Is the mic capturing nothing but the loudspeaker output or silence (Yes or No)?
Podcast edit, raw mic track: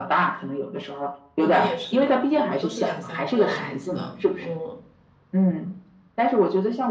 No